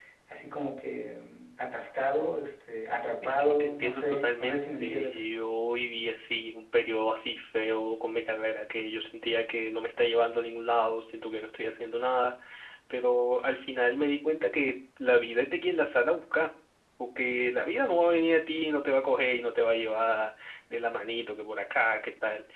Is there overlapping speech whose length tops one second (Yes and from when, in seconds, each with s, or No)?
Yes, from 3.2 s